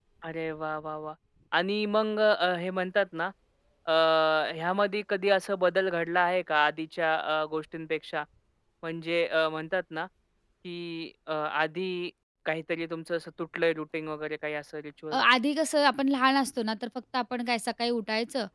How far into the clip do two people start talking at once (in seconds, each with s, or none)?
none